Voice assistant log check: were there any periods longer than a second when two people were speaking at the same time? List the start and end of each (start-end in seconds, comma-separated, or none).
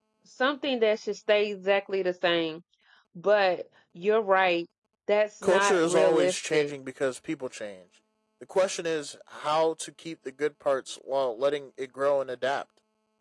5.4-6.7